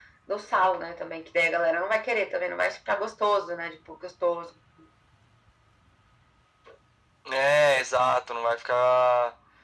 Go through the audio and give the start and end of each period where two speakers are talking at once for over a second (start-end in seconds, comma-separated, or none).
none